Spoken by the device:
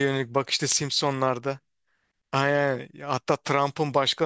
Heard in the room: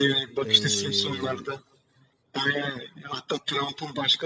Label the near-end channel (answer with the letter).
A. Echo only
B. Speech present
B